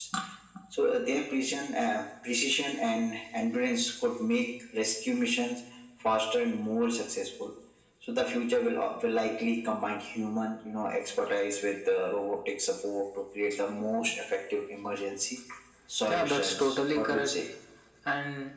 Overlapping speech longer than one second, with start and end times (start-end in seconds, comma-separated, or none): 16.1-17.3